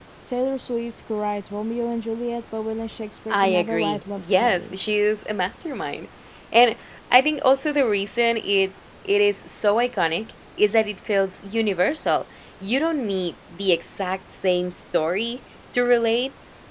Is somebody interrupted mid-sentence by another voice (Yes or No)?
Yes